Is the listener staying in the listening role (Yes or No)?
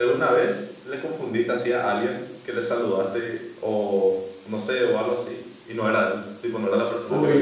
No